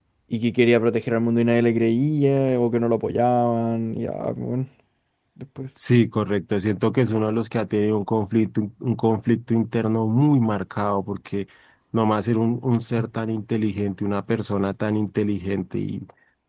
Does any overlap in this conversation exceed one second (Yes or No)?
No